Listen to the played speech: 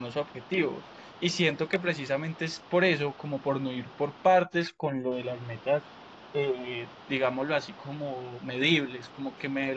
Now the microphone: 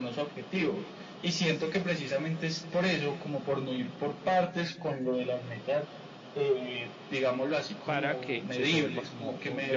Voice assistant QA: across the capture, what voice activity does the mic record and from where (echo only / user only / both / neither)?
both